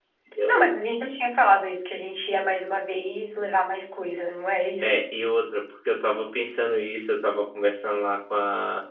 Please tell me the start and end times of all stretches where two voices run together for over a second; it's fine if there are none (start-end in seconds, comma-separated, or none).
none